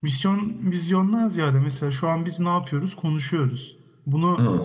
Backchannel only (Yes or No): Yes